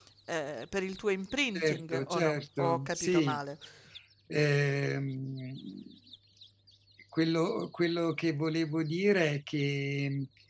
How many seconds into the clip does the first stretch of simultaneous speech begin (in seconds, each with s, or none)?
1.6 s